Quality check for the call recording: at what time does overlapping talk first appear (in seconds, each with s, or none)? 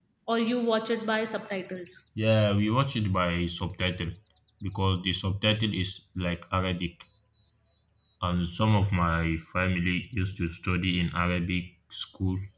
none